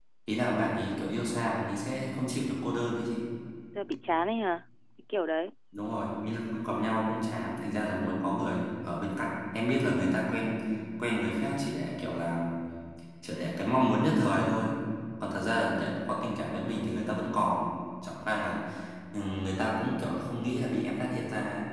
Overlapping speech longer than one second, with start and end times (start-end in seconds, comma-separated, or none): none